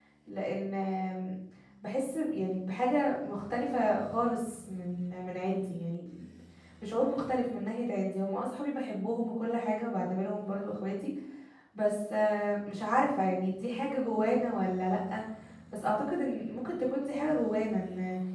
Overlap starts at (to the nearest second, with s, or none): none